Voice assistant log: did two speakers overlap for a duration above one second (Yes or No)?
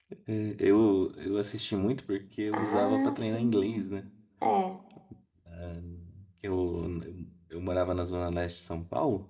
Yes